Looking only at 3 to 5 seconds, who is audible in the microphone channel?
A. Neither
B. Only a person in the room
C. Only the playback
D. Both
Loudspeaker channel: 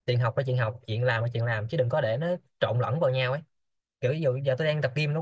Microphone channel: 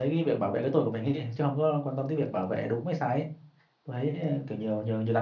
B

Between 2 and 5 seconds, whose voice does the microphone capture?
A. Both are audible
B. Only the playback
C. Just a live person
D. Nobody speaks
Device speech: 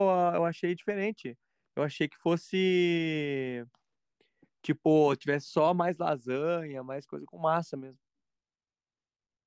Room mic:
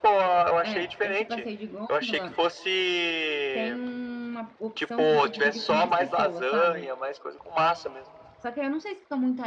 A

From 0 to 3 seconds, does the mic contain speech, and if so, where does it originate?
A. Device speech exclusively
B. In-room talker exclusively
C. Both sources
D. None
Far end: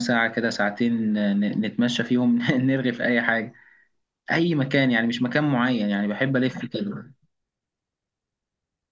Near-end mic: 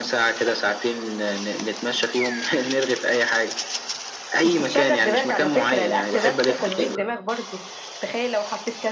A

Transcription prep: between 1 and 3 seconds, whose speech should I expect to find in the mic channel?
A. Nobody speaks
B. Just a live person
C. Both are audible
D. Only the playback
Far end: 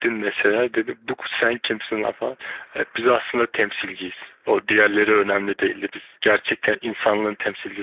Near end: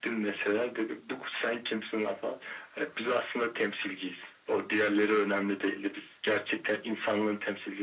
D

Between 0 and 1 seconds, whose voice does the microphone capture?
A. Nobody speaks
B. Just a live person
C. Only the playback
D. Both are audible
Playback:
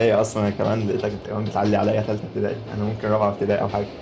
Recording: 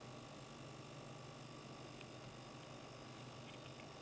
A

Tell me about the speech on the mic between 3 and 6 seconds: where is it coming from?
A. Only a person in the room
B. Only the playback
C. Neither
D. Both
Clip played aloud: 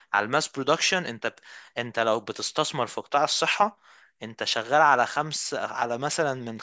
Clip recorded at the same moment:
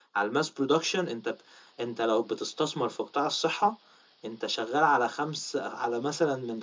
B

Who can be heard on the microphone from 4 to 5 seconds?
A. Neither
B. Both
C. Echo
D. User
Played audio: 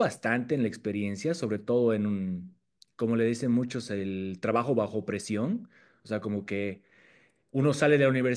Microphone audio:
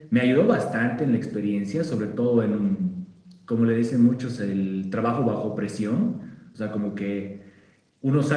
C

